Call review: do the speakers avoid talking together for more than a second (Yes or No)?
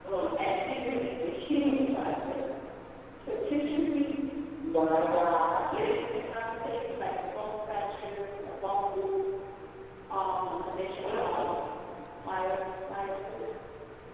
Yes